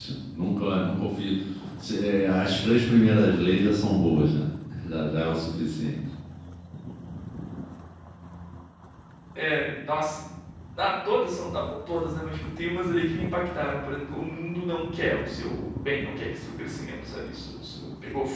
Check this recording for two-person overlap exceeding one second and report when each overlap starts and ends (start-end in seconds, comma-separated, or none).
none